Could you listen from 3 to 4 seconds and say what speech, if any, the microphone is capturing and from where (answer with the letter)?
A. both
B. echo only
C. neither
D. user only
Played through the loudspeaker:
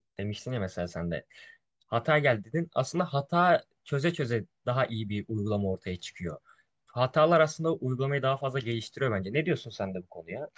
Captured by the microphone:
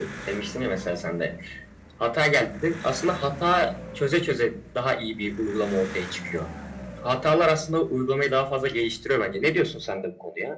B